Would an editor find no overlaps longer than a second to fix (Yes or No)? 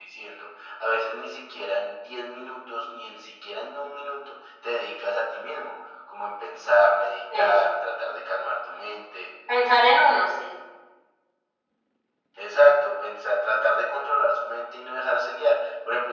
Yes